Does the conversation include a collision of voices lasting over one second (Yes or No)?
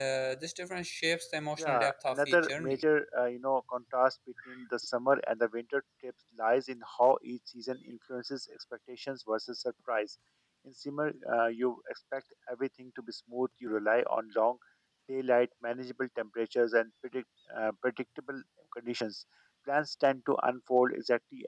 Yes